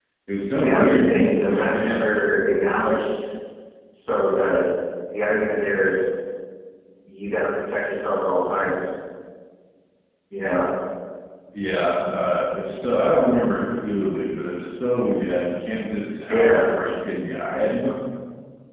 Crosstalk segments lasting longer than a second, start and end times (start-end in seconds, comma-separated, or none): 0.6-2.2